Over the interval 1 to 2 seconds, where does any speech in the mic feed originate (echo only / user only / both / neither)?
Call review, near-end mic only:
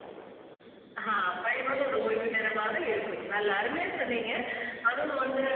echo only